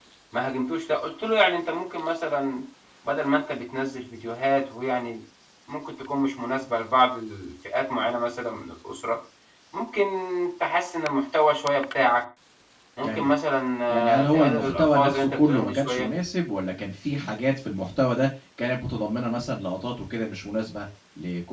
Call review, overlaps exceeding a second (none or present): present